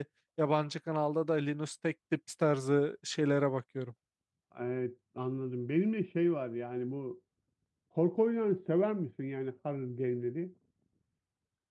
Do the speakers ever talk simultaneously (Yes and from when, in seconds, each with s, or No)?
No